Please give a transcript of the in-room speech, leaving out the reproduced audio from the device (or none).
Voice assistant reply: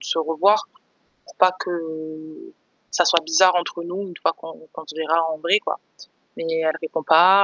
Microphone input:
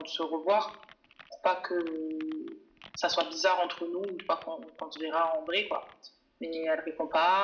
none